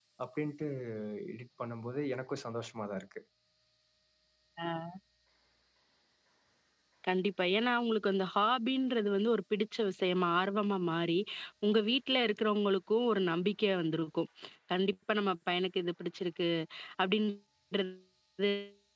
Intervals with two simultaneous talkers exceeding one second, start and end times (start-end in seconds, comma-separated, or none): none